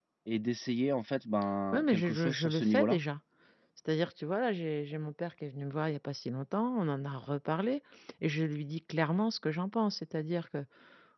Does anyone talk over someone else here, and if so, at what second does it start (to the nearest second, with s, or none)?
2 s